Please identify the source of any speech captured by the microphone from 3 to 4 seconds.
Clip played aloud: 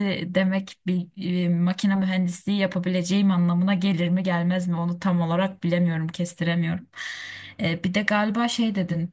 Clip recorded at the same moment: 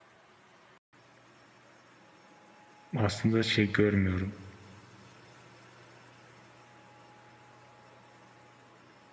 user only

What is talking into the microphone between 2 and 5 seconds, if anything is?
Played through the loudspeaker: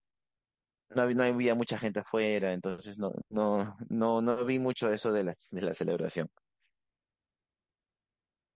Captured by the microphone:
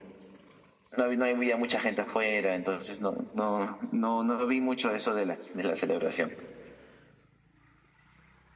echo only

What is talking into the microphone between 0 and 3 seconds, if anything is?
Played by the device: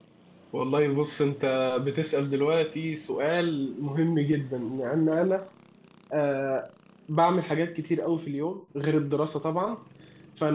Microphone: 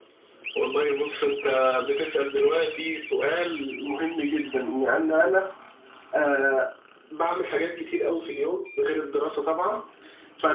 echo only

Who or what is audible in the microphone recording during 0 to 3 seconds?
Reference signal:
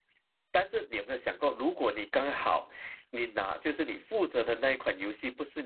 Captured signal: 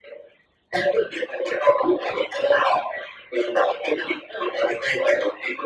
echo only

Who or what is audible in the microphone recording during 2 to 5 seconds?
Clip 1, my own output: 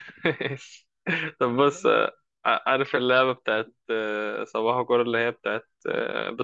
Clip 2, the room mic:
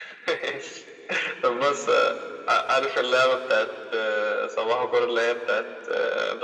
echo only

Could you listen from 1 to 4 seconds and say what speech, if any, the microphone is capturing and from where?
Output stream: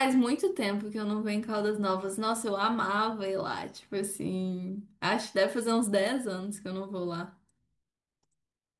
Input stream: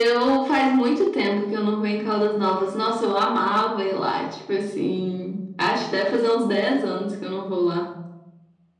echo only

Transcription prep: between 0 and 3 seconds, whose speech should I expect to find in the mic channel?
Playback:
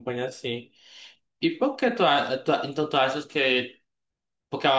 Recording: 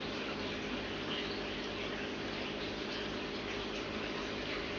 neither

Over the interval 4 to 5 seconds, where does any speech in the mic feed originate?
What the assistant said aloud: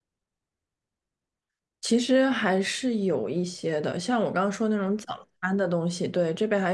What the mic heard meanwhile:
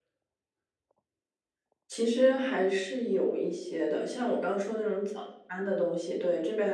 echo only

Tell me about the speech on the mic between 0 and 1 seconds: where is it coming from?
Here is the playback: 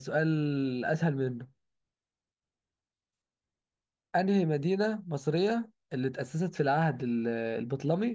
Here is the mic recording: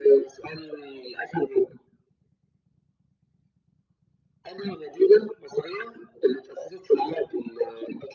echo only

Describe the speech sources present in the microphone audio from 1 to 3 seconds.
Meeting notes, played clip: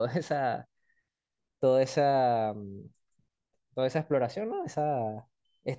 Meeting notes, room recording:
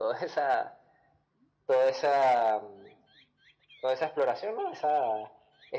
echo only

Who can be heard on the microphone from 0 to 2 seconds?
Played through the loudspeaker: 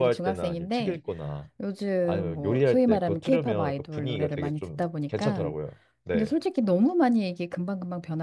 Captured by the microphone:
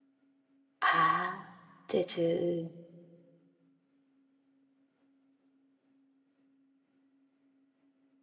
user only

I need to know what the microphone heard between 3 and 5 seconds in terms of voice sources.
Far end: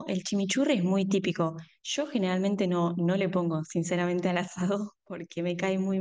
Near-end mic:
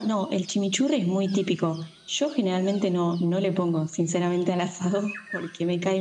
echo only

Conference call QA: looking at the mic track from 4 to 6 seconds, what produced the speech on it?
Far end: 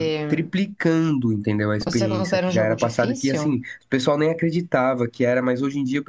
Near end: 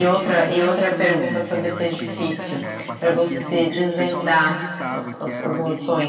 both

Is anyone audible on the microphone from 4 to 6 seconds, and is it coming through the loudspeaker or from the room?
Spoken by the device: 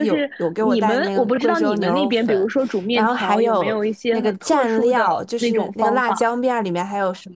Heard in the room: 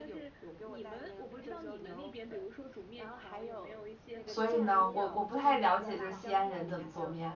both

